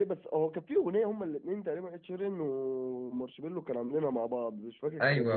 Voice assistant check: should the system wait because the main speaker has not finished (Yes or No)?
No